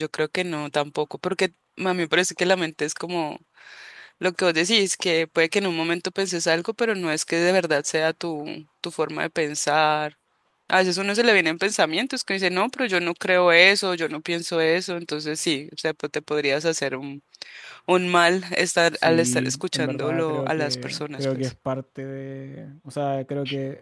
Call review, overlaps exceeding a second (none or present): present